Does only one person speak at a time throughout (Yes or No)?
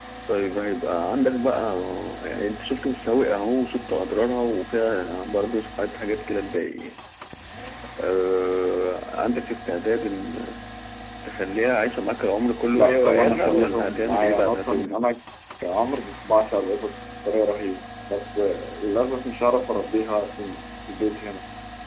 No